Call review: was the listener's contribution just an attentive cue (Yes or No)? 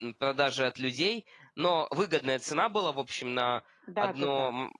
Yes